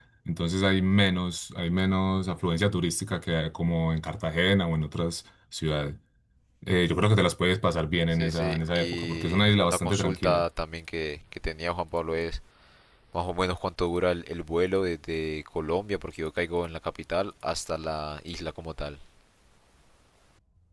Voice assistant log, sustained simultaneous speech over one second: present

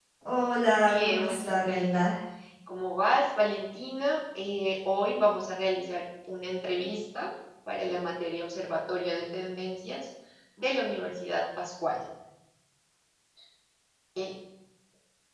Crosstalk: present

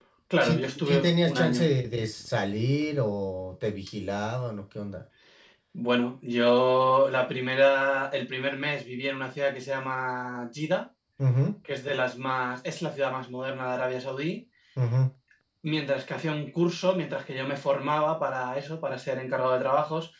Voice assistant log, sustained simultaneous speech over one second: present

